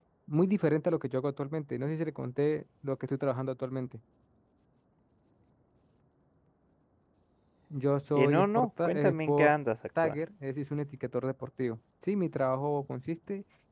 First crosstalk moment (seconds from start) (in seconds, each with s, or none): 8.2 s